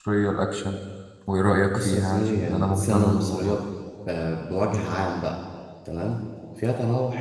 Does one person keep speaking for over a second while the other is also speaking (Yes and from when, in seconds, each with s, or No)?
Yes, from 1.7 s